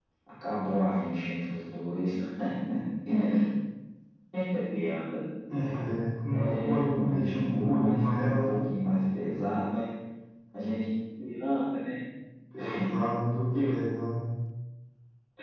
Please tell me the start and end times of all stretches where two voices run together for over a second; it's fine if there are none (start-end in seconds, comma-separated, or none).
6.3-8.6